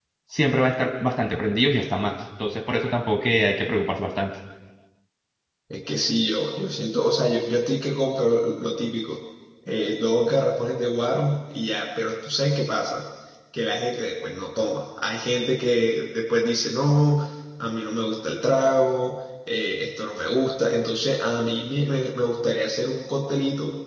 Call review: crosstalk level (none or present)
none